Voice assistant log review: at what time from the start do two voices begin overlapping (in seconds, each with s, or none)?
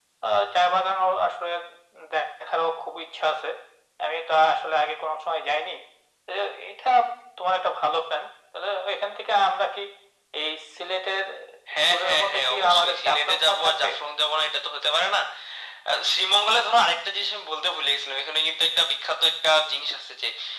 11.9 s